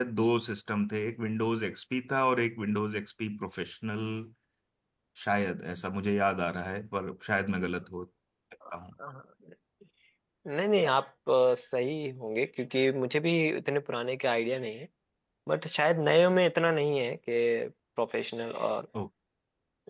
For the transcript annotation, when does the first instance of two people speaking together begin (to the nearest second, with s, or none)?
none